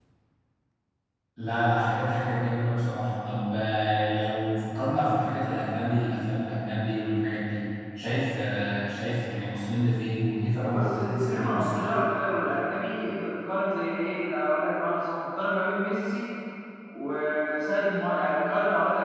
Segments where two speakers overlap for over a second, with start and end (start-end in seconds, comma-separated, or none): 10.6-11.9